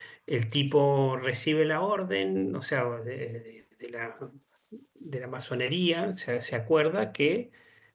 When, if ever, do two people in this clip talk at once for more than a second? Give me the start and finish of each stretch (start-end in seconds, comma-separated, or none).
none